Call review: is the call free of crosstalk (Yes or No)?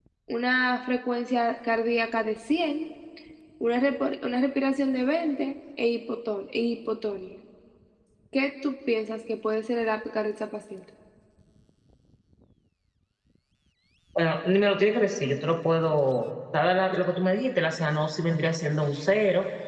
Yes